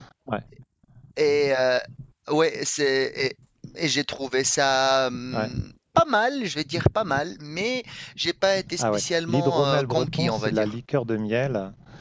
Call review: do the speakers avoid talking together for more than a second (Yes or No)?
No